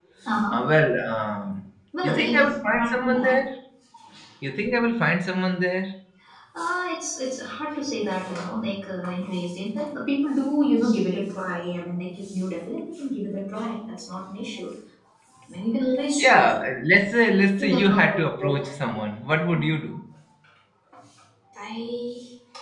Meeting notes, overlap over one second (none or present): present